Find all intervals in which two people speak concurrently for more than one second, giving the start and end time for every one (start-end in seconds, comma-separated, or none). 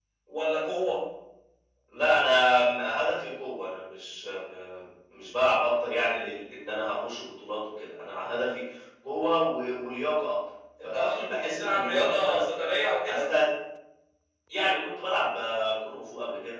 10.8-12.4